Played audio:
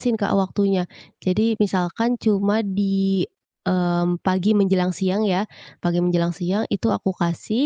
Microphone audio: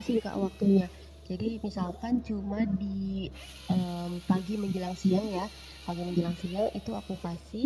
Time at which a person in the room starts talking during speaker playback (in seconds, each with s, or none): none